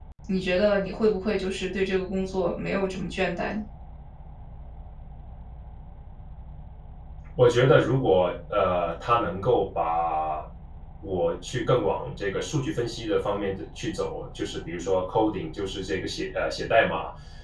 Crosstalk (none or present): none